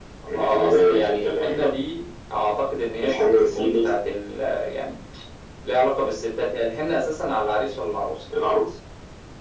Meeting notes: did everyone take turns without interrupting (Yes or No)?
No